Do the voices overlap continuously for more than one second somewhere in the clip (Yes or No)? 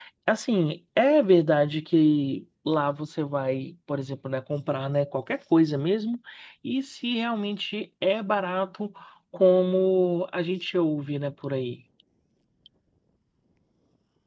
No